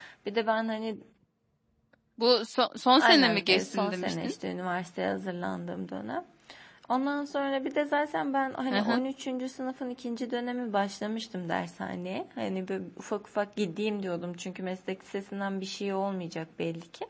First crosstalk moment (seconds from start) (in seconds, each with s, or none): 3.0 s